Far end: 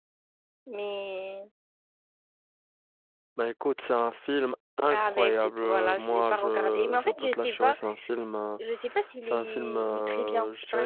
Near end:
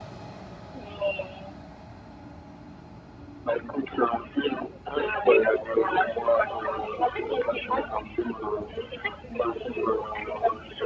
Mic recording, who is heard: echo only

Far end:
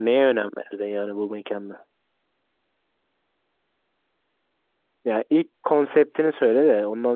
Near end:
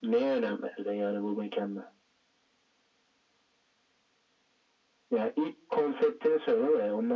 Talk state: echo only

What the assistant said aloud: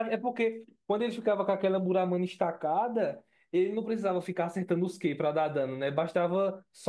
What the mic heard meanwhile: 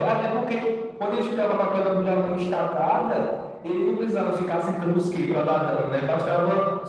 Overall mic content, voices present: echo only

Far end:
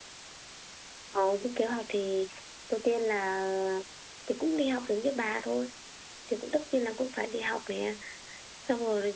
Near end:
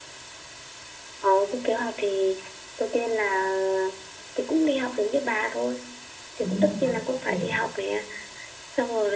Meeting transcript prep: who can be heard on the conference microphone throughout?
both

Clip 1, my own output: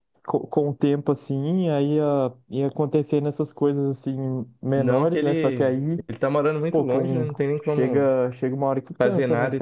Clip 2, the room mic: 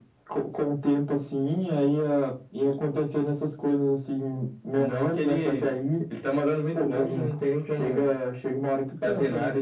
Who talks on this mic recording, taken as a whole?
echo only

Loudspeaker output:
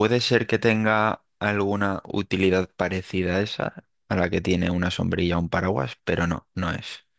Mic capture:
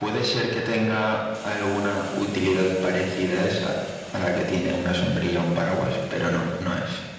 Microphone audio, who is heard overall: echo only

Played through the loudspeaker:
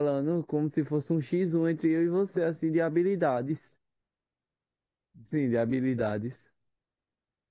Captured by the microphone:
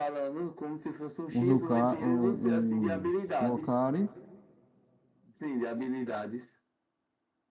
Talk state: both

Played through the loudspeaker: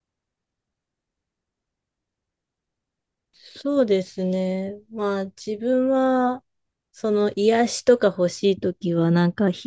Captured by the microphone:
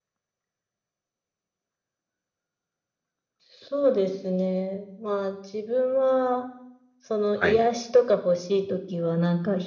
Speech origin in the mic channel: both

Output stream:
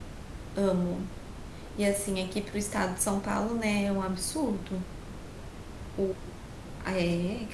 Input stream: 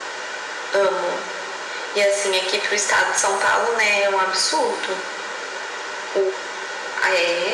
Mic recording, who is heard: echo only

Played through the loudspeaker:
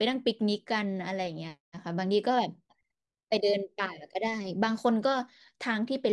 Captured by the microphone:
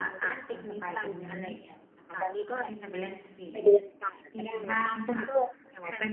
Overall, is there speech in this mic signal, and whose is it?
both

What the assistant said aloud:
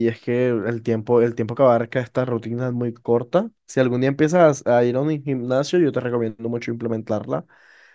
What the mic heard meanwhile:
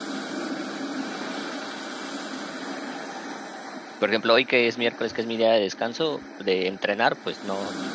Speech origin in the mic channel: user only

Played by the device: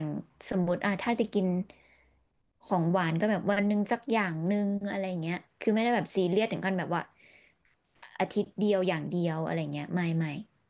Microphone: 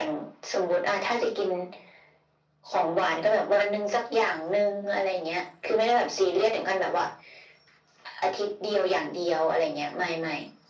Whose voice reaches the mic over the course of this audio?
echo only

